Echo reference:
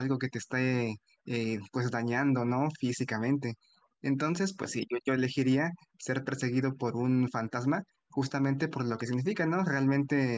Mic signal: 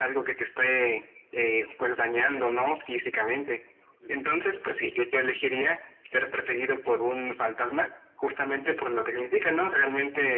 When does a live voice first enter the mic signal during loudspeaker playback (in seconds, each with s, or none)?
4.0 s